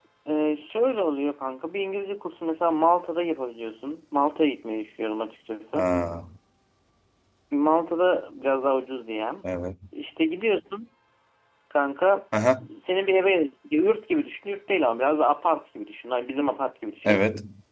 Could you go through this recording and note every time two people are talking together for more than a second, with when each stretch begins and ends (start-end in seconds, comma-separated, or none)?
none